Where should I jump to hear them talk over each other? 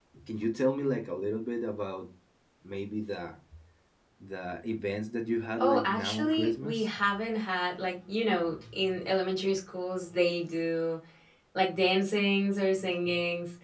5.6 s

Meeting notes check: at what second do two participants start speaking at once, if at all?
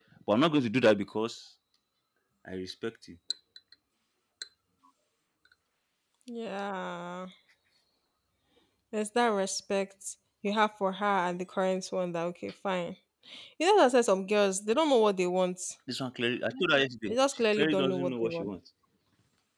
17.1 s

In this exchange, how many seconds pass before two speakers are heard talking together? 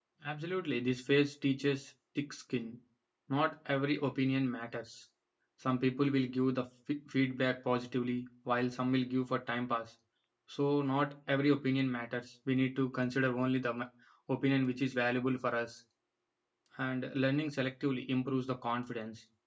none

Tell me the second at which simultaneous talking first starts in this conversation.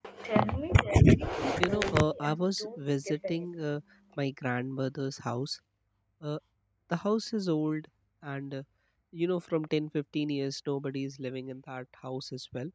1.6 s

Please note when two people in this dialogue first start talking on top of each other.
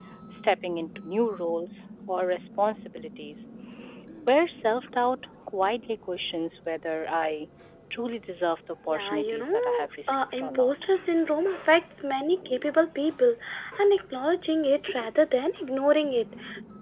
8.9 s

